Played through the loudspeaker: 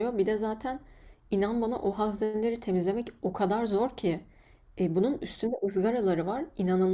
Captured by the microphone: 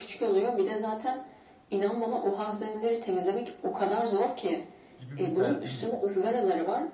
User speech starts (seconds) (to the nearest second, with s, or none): 5 s